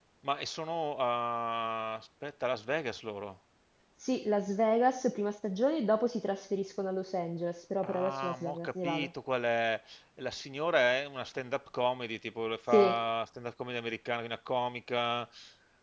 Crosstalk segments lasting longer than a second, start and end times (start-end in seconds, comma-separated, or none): 7.9-9.1